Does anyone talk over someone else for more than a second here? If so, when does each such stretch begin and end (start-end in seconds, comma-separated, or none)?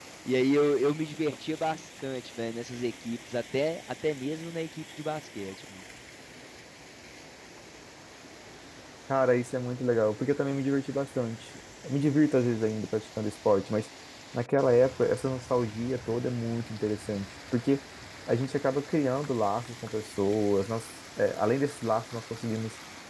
none